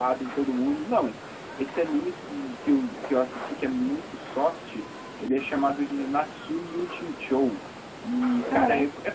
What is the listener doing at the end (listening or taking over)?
listening